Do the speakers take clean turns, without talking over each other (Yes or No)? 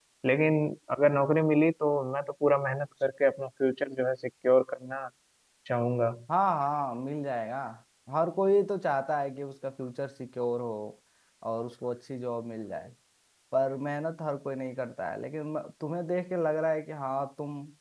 Yes